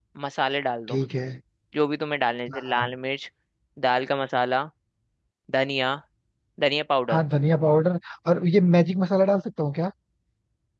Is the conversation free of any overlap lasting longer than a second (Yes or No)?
Yes